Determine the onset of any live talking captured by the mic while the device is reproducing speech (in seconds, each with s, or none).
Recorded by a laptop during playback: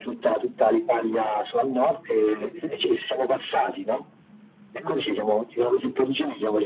4.8 s